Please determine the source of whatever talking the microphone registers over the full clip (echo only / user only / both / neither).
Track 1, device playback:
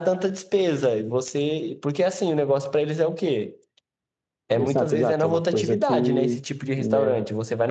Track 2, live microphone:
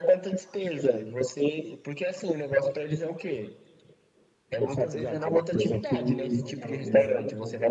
both